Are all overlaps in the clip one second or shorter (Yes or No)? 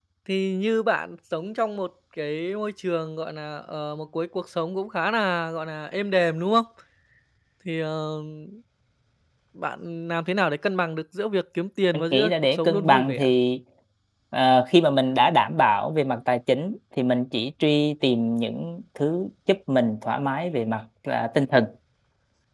No